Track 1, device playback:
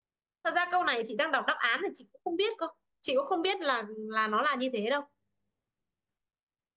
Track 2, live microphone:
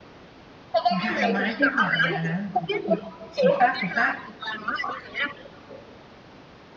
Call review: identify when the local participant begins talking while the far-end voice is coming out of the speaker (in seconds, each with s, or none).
0.9 s